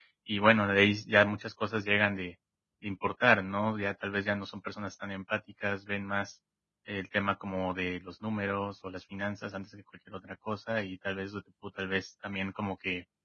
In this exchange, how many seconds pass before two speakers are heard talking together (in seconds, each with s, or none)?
none